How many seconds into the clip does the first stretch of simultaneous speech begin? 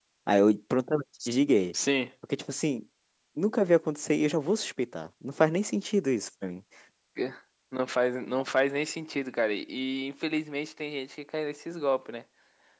none

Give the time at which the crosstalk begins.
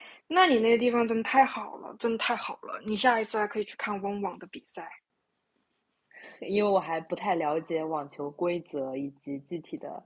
none

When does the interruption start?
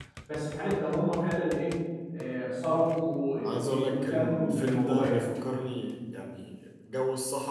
3.4 s

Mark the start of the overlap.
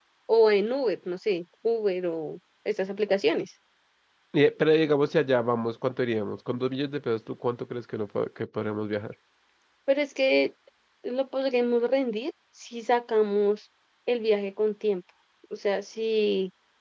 none

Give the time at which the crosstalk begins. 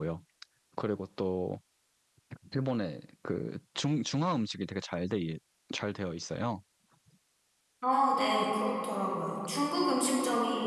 none

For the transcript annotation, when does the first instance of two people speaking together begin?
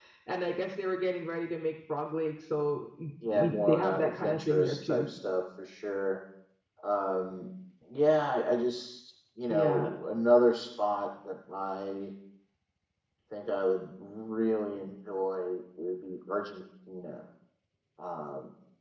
3.3 s

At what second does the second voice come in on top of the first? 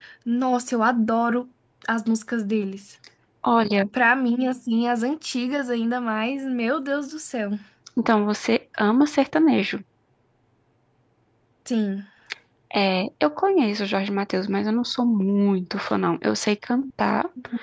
none

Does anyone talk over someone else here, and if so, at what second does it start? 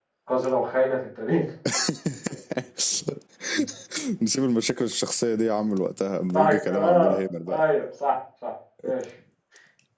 6.3 s

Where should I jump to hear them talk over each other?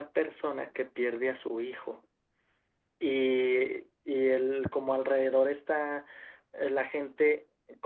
none

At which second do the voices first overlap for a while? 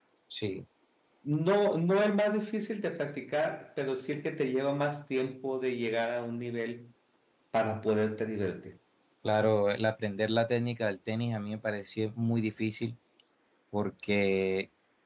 none

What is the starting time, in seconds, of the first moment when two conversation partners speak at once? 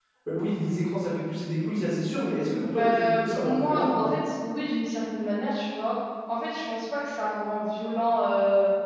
2.8 s

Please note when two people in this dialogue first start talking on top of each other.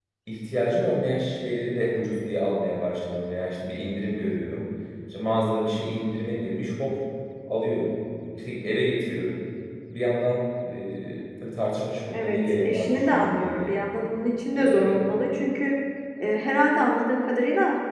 12.1 s

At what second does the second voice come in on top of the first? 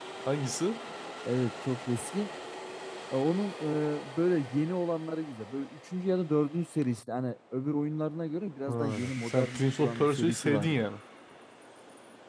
8.7 s

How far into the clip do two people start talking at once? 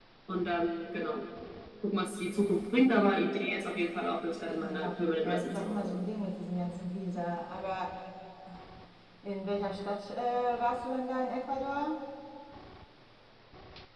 4.5 s

